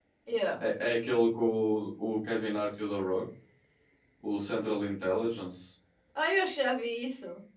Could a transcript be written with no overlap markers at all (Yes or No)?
Yes